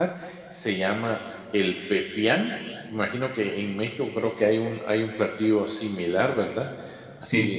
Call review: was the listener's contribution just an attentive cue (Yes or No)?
Yes